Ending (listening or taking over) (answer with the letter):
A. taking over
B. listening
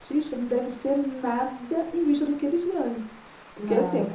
B